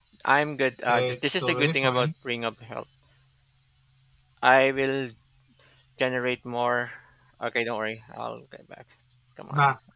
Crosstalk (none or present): present